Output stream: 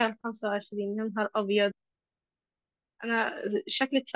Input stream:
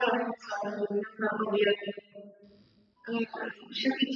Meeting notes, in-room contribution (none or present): none